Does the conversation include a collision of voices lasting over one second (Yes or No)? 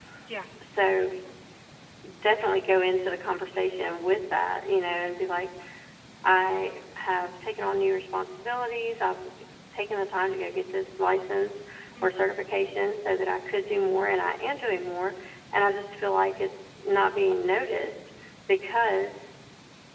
No